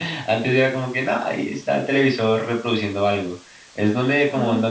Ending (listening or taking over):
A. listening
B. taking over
A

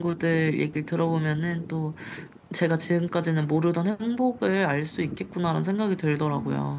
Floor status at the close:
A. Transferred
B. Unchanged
A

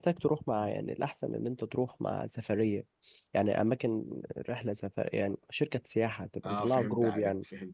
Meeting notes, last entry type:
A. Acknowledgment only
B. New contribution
B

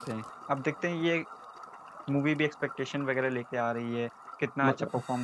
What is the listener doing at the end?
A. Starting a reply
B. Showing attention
B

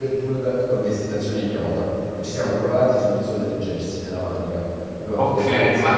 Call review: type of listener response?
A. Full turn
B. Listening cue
A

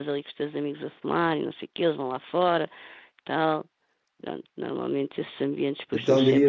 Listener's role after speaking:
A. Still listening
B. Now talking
B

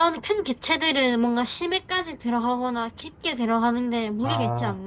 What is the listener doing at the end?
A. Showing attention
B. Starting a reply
B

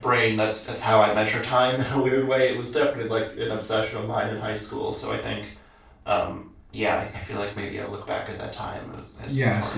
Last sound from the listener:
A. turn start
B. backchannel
A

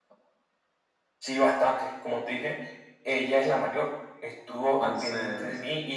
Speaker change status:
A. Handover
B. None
B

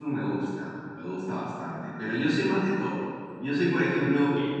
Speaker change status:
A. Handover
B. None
B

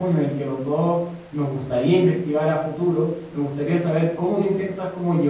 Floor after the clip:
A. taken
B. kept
B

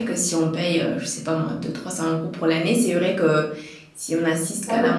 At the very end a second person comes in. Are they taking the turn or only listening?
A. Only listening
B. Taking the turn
B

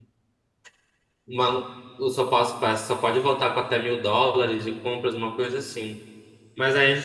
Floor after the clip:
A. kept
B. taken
A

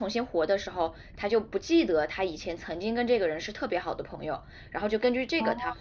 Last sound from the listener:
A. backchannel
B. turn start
A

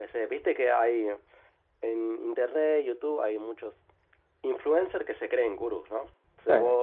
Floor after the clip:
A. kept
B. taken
A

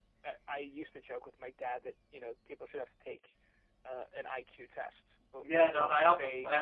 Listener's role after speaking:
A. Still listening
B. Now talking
B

